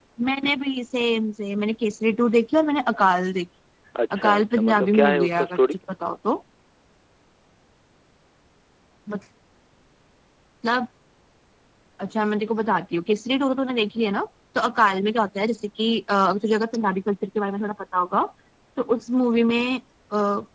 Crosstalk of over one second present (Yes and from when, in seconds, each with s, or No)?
Yes, from 4.2 s